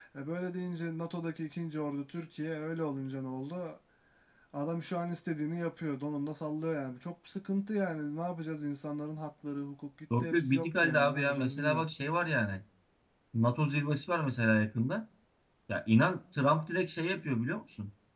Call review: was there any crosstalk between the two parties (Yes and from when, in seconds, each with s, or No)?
Yes, from 10.1 s